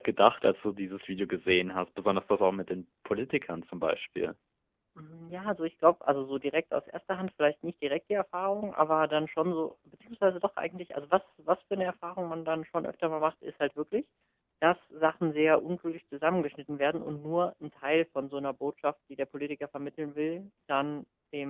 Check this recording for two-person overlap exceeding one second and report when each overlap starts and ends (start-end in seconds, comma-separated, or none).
none